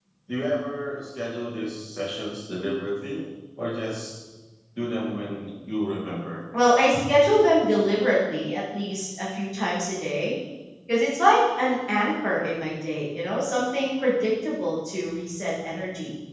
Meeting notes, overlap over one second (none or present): none